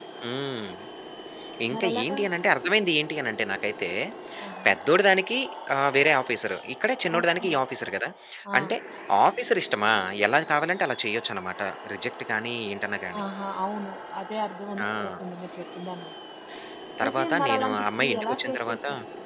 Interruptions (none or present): present